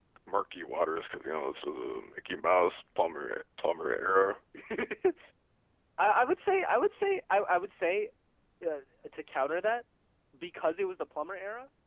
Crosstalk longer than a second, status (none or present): none